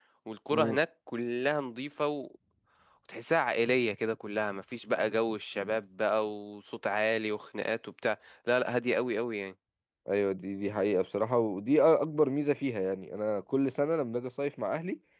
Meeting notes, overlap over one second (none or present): none